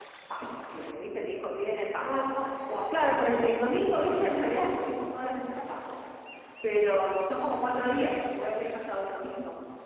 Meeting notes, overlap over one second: none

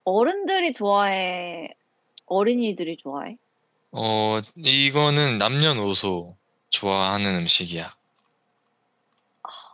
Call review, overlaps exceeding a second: none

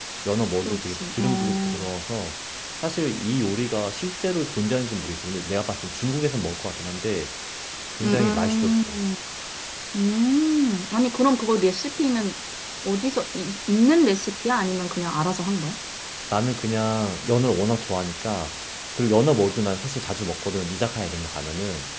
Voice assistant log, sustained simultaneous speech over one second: present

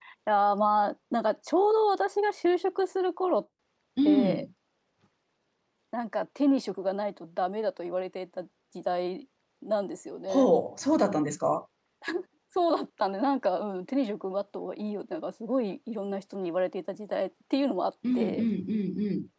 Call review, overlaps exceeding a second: none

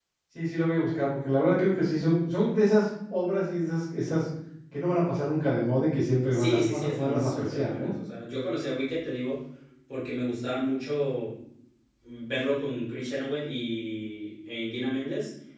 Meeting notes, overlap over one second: present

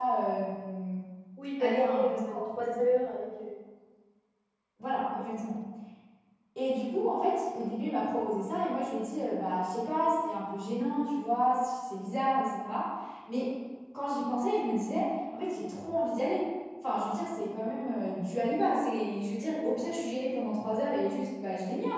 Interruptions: present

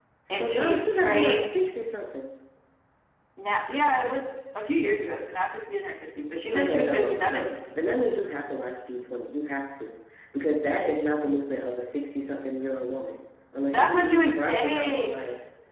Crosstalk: present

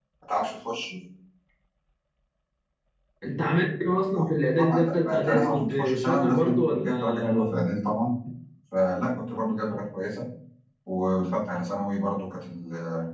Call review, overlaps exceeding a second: present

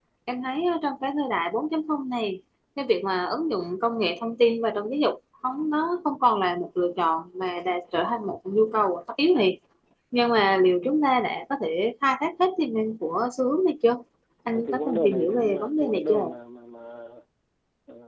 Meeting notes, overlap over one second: present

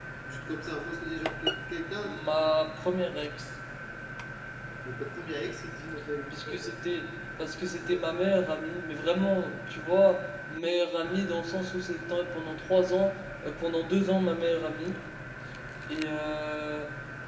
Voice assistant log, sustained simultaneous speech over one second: none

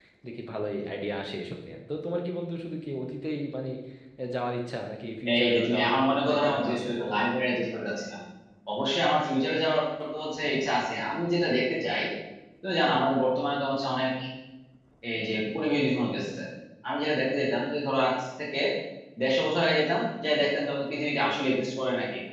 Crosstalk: present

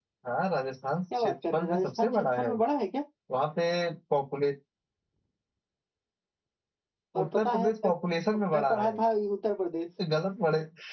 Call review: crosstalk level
present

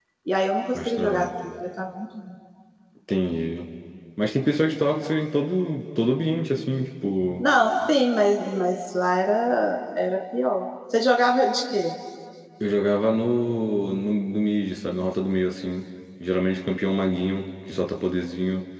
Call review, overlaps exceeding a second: none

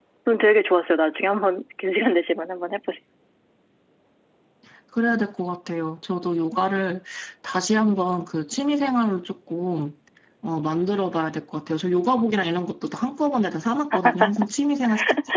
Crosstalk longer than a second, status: none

